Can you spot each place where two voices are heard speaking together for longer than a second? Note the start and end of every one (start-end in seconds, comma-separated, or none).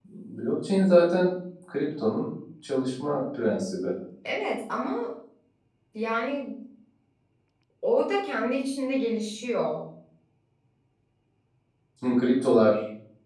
none